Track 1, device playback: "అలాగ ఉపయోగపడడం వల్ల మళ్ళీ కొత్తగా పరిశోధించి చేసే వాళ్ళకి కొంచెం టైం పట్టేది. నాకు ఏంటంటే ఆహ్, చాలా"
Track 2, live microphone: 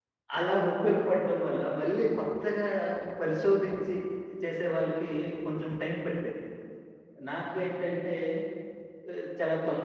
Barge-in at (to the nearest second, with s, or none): none